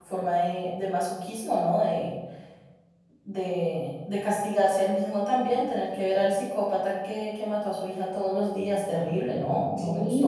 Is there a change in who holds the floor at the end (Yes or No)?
Yes